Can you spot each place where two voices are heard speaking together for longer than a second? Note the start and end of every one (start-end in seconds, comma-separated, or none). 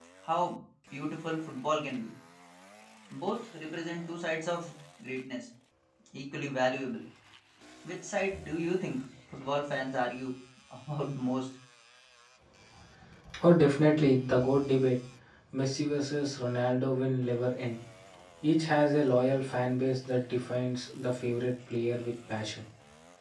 none